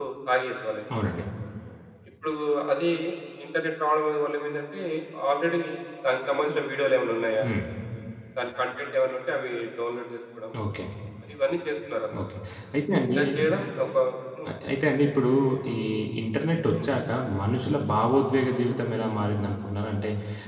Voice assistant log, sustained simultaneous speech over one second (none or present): none